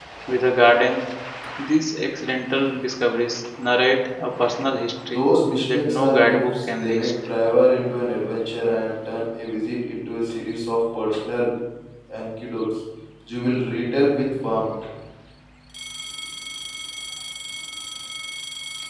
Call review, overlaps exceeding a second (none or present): present